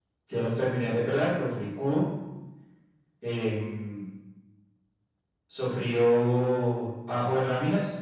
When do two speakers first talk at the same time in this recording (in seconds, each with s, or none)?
none